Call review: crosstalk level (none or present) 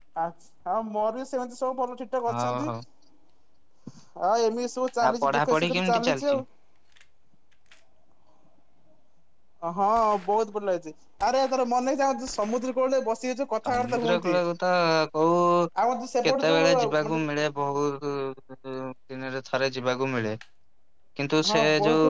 present